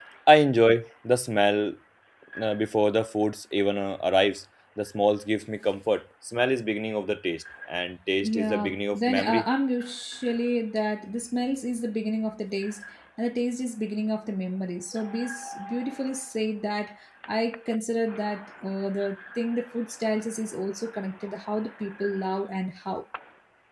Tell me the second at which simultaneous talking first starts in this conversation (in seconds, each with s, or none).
8.2 s